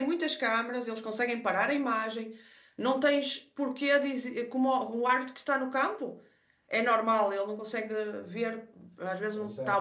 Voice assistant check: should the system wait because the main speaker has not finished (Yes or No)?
Yes